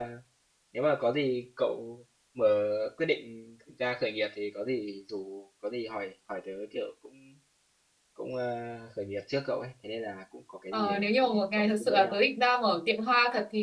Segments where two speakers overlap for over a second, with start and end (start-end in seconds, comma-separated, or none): 10.7-12.2